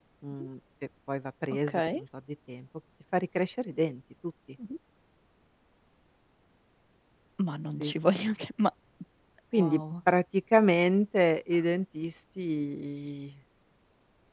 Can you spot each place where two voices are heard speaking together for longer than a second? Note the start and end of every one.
none

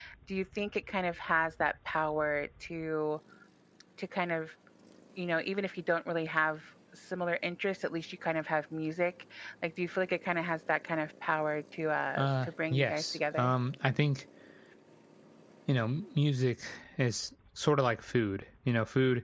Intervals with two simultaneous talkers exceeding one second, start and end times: 12.2-13.5

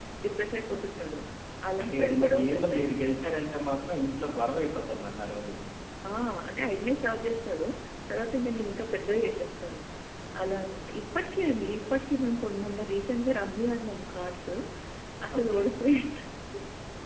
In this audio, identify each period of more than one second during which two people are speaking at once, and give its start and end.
1.8-3.2

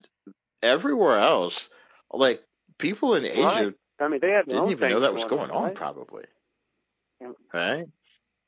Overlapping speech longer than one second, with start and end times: 4.5-5.8

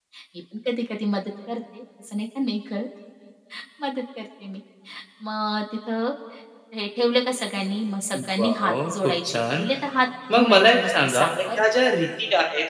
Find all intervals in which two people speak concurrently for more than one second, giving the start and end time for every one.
8.4-9.7, 10.3-11.6

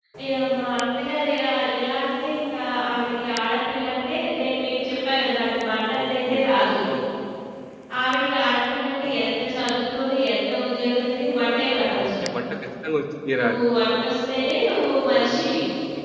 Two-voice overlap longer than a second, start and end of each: none

